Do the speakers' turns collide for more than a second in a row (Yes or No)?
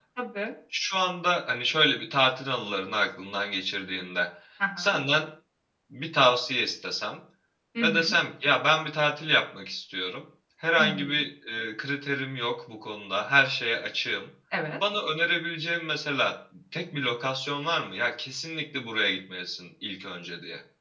No